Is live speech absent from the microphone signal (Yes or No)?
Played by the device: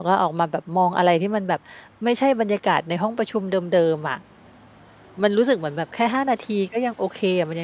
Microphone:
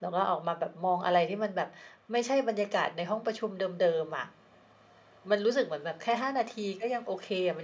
Yes